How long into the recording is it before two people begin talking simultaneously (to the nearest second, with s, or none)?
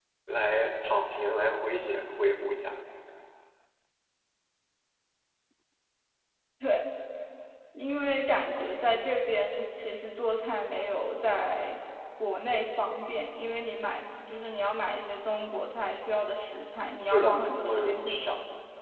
17 s